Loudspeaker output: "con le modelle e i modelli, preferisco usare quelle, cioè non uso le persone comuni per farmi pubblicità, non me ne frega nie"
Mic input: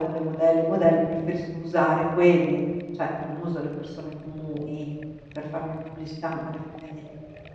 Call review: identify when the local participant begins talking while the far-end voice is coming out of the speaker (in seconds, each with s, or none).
none